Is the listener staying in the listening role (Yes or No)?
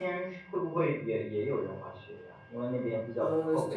No